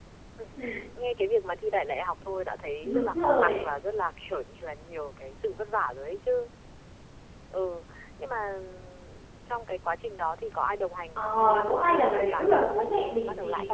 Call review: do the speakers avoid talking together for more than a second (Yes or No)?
No